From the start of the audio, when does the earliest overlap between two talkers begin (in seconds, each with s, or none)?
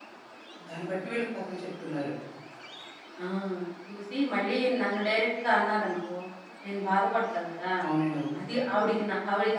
none